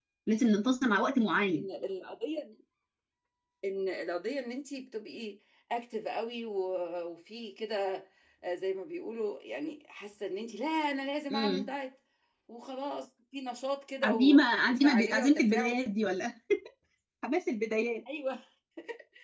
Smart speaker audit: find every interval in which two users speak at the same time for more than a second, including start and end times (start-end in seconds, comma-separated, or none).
14.0-15.7